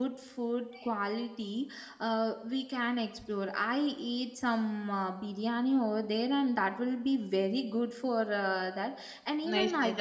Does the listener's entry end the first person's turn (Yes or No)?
Yes